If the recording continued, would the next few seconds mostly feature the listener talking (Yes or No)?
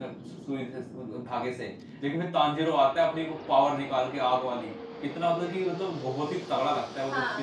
Yes